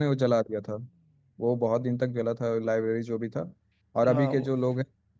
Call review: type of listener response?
listening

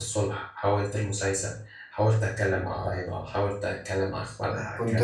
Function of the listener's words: taking over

